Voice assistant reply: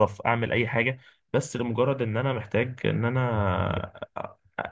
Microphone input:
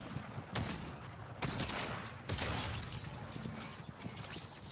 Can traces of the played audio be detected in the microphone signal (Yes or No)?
No